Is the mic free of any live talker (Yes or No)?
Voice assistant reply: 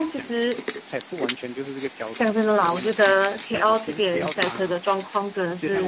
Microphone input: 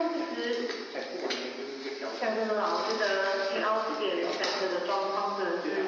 Yes